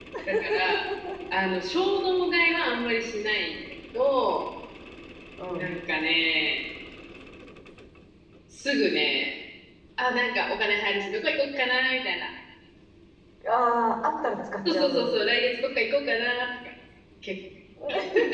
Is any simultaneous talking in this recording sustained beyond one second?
No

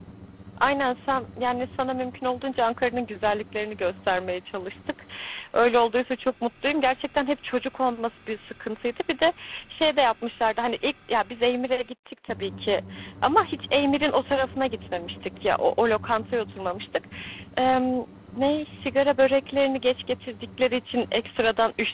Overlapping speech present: No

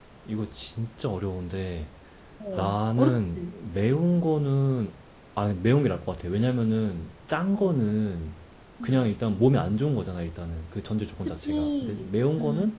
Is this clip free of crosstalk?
No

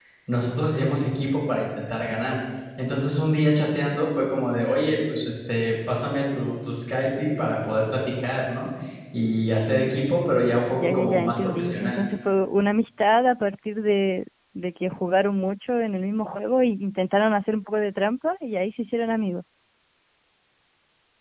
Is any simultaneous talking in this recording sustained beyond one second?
Yes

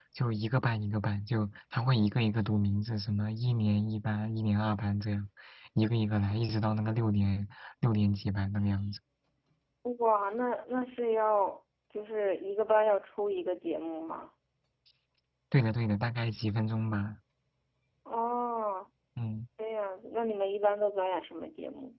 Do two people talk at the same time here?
No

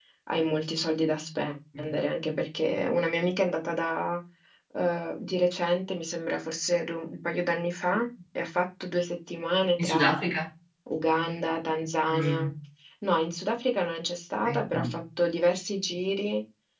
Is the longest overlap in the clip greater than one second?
No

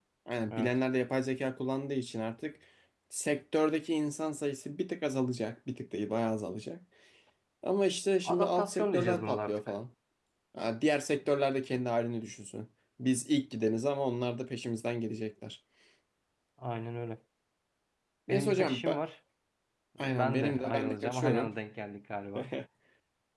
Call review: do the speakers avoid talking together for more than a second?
No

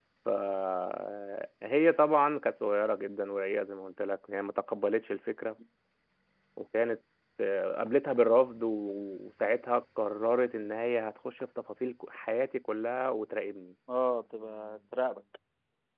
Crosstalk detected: No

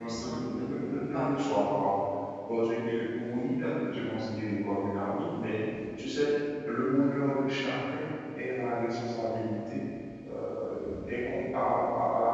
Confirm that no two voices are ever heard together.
No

